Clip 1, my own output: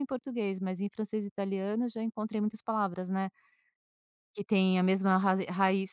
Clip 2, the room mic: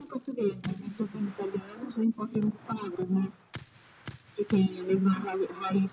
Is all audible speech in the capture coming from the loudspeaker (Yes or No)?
Yes